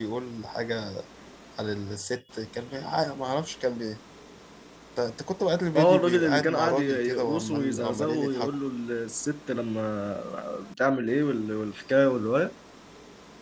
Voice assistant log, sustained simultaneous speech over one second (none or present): present